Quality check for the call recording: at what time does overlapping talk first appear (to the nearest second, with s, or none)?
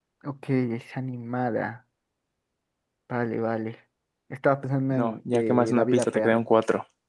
5 s